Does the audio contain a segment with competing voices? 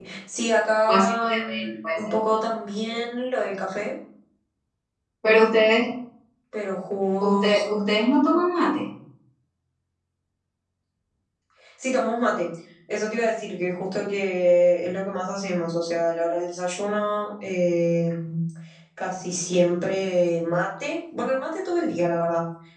Yes, from 0.9 s

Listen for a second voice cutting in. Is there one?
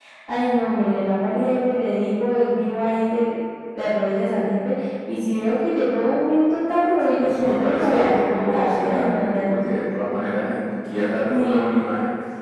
Yes, from 7.2 s

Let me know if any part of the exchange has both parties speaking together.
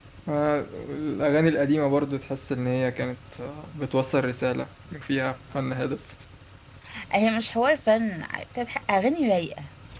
No

